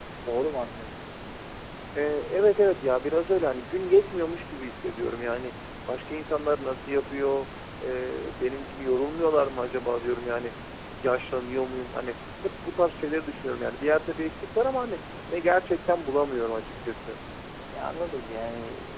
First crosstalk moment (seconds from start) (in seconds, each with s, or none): none